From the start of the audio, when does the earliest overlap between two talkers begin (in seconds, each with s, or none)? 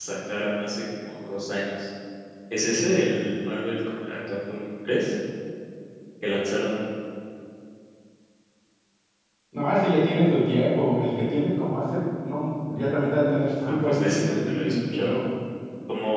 13.6 s